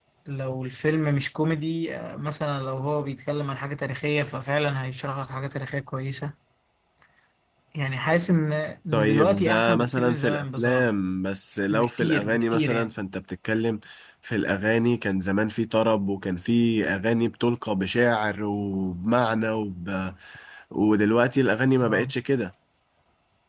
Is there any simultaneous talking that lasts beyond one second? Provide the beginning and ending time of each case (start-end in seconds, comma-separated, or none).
8.9-10.9, 11.7-12.9